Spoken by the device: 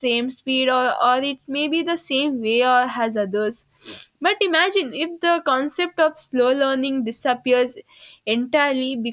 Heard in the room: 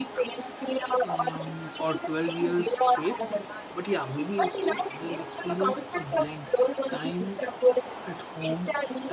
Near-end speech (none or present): present